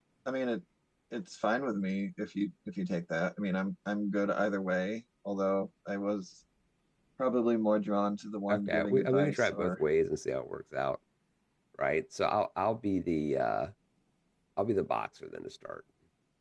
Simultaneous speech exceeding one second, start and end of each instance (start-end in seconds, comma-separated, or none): 8.5-9.8